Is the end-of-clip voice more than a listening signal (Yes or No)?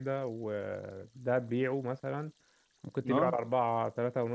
No